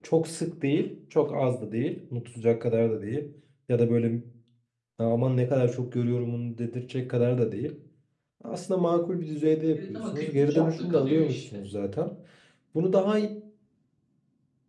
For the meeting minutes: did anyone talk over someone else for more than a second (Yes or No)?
Yes